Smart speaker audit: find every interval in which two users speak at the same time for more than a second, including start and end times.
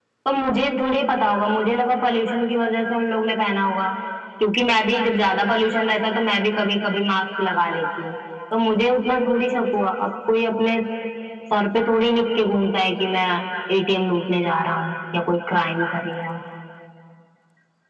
none

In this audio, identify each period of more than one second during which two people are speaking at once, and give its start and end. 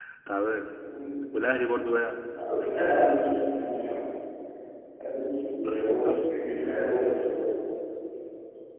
none

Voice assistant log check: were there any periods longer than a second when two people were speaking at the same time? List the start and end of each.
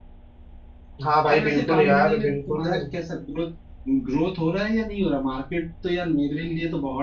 1.2-2.7

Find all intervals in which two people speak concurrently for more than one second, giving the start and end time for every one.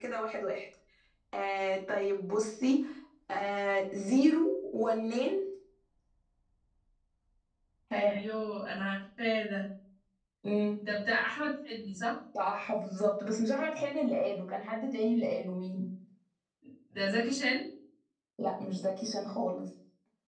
none

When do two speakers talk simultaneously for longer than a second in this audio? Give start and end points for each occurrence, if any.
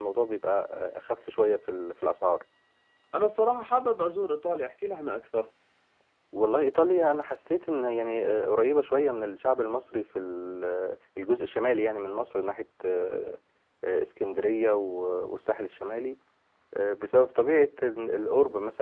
none

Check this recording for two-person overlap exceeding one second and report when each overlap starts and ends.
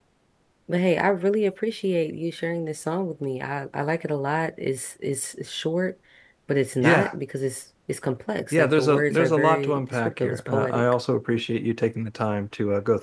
8.5-10.8

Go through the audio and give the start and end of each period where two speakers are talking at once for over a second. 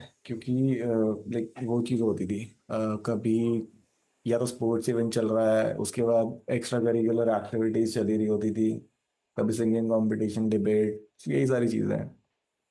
none

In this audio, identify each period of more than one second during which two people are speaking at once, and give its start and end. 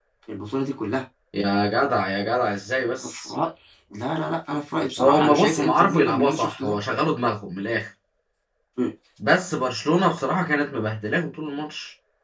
5.0-6.8

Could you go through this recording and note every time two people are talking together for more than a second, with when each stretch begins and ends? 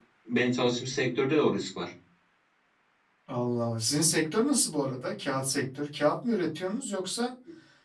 none

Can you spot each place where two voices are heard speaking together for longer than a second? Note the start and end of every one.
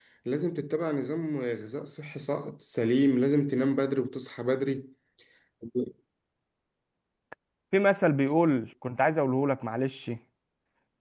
none

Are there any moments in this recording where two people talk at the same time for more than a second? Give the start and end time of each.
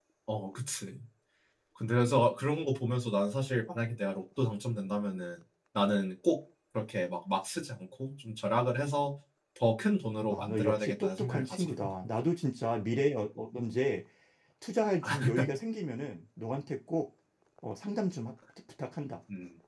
10.3-11.9

